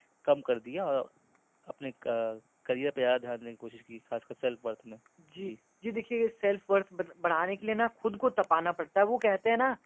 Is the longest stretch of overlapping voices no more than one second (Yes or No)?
Yes